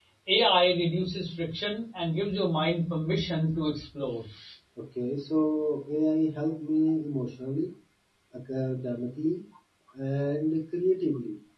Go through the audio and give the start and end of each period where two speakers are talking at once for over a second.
none

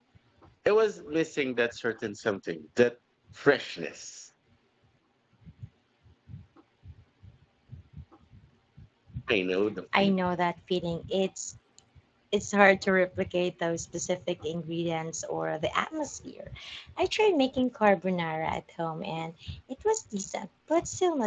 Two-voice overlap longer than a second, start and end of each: none

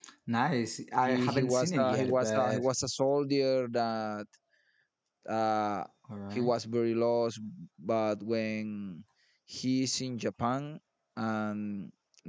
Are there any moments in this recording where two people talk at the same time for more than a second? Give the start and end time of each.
1.0-2.6

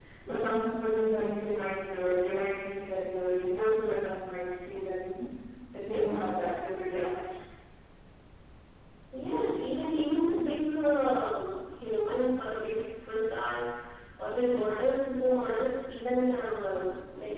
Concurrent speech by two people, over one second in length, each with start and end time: none

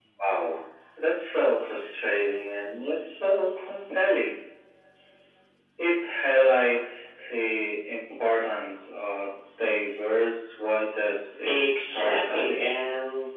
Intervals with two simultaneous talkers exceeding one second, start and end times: 11.4-12.7

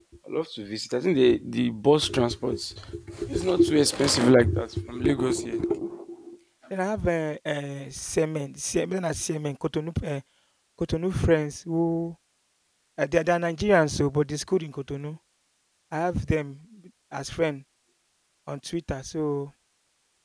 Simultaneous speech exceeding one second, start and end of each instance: none

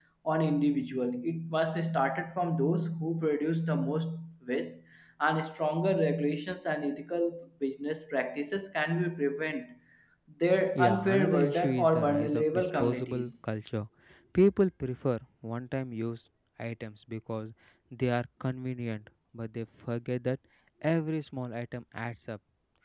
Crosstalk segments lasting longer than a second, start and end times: 10.8-13.3

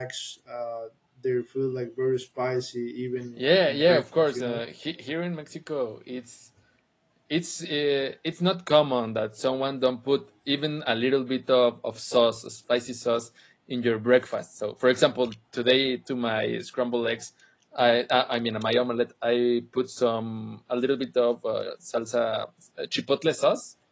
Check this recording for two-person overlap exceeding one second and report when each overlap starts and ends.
3.4-4.6

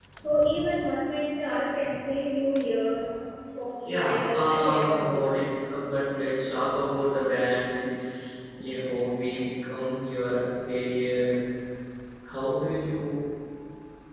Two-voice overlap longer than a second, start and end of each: 3.9-5.4

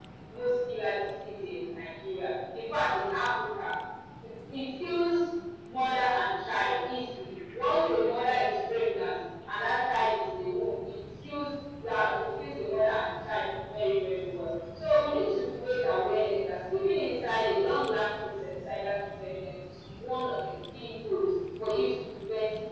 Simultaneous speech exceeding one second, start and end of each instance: none

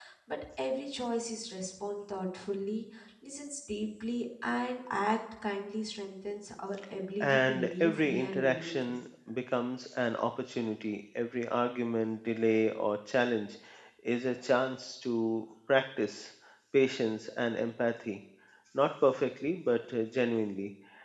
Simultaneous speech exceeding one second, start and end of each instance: 7.2-9.0

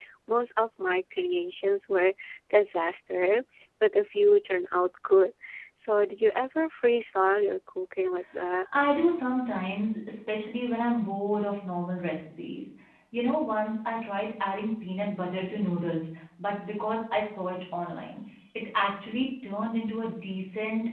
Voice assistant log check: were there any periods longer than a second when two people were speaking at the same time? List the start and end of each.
none

